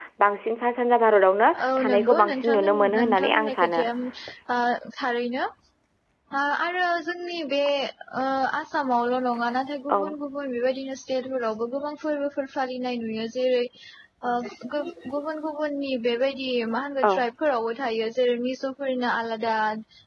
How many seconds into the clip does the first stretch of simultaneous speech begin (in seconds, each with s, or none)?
1.5 s